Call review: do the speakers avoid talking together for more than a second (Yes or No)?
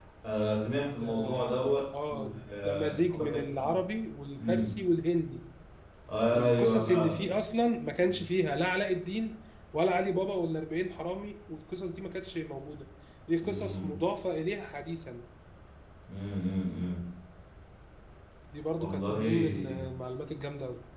No